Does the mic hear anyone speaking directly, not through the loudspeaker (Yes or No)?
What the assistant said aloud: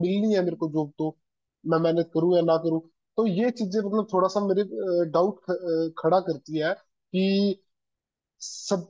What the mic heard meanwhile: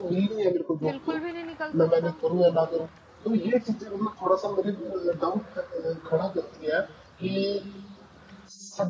Yes